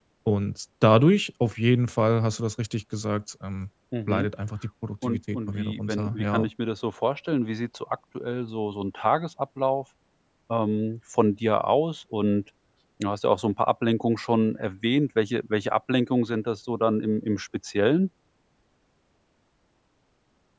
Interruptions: present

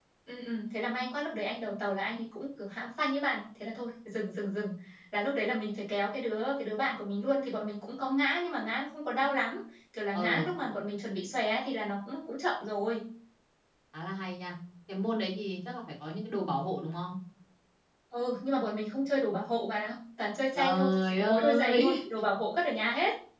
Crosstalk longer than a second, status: present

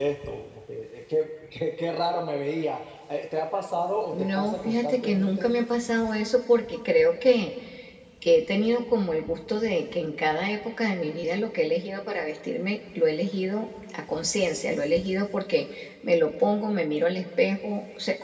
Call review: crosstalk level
present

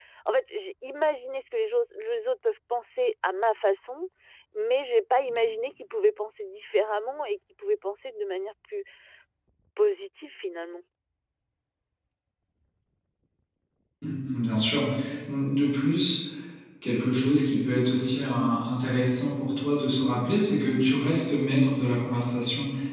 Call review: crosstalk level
none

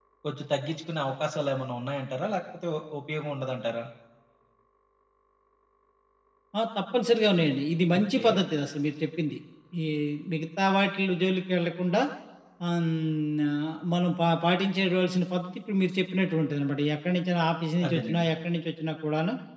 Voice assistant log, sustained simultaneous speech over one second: none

